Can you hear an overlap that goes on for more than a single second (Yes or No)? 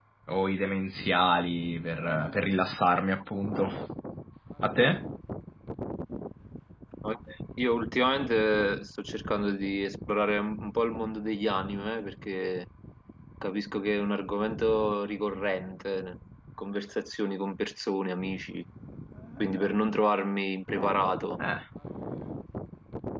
No